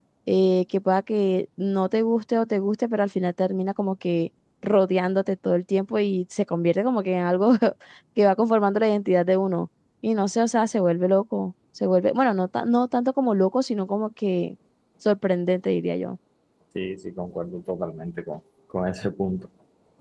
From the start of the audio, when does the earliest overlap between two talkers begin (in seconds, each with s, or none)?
none